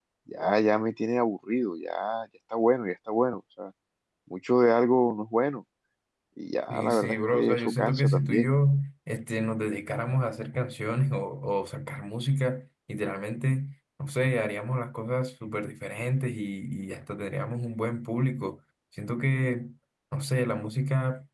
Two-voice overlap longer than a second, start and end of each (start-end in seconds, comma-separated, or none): 6.7-8.5